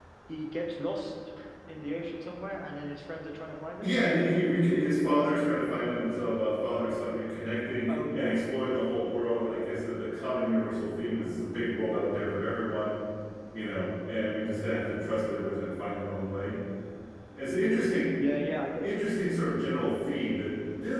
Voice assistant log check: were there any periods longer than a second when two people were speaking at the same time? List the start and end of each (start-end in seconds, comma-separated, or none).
none